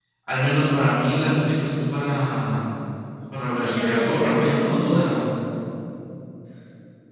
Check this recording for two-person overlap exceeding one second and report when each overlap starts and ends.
3.5-5.0

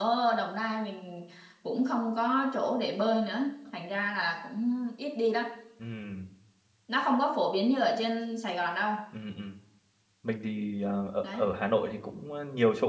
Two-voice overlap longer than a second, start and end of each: none

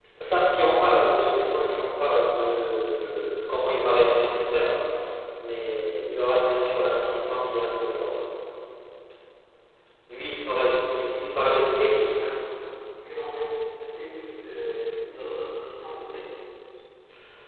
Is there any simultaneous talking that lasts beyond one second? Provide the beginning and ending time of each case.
none

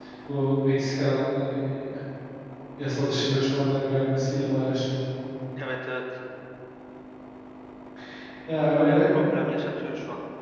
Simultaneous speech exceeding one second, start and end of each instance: none

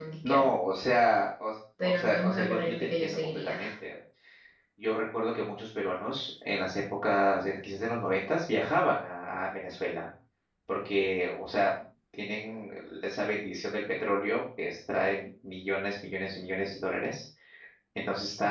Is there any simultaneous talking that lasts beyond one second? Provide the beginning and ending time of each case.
1.8-3.6

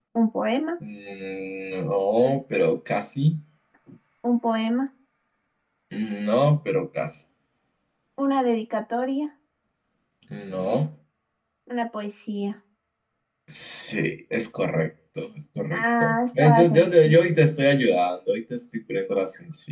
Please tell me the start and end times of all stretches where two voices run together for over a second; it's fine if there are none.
15.7-17.1

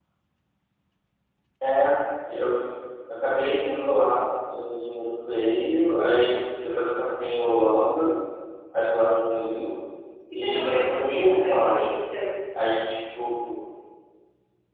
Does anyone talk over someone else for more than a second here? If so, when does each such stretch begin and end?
10.3-11.9

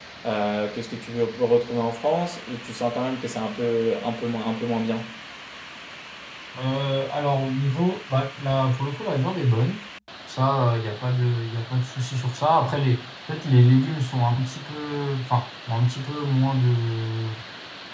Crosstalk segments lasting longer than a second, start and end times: none

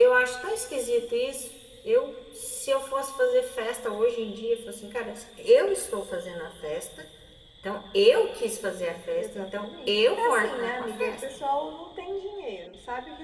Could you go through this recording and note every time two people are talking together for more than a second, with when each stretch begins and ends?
9.2-11.2

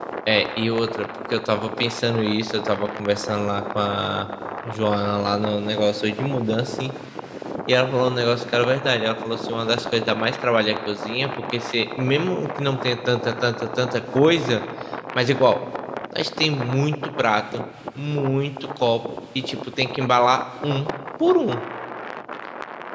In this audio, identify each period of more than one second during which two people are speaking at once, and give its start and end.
none

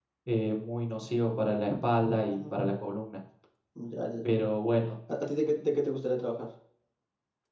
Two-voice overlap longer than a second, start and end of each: none

